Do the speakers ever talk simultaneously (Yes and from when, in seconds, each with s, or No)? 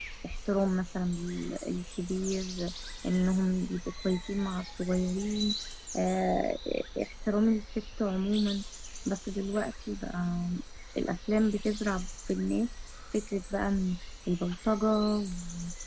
No